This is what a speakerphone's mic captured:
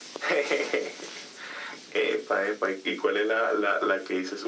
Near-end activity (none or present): none